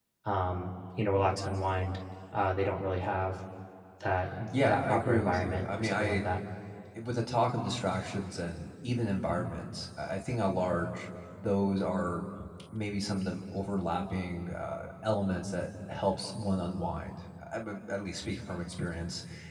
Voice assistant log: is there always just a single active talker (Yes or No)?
No